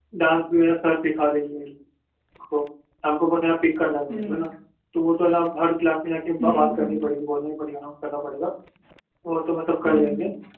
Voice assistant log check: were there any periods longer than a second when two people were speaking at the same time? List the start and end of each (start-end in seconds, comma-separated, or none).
none